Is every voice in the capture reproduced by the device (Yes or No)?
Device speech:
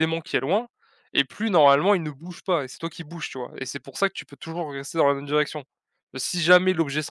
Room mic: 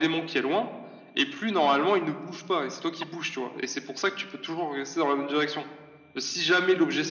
Yes